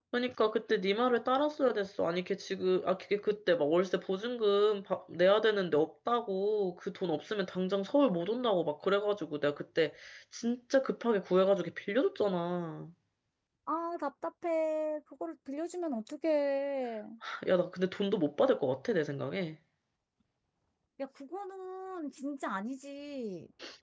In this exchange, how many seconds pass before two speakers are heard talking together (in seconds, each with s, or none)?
none